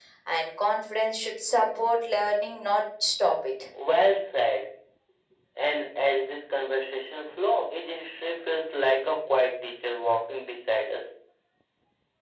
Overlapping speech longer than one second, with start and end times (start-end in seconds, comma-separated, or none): none